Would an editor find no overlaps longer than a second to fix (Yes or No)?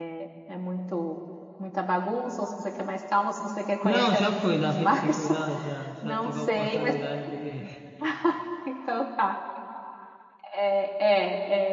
No